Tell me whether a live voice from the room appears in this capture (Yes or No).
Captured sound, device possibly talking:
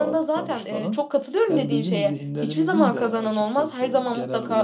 No